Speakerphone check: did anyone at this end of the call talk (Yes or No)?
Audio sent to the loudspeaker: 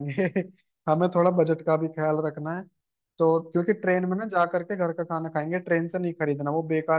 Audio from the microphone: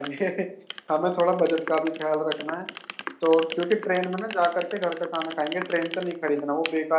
No